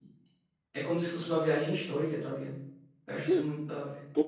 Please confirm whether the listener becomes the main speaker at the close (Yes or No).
Yes